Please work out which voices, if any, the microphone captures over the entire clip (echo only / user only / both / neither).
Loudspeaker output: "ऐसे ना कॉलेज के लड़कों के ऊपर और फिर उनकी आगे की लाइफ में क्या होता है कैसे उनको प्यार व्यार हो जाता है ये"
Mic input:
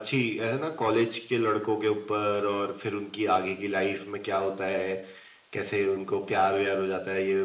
echo only